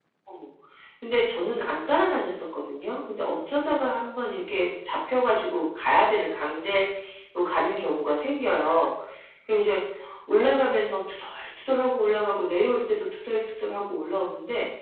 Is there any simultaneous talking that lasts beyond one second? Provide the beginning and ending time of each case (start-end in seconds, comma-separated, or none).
none